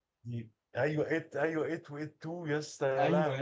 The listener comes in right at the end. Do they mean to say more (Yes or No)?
Yes